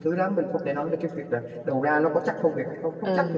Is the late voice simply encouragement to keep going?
No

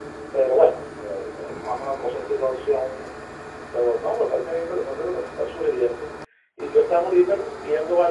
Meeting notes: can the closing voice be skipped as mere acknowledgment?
Yes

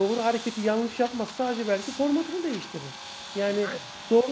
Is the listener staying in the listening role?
Yes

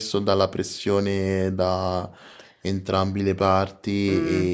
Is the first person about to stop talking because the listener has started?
Yes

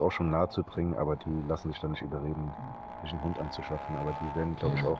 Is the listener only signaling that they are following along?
Yes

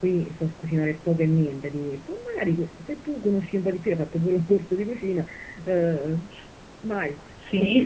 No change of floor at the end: No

